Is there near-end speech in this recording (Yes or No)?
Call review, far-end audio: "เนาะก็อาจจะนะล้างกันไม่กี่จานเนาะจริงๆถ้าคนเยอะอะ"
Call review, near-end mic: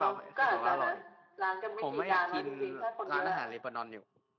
Yes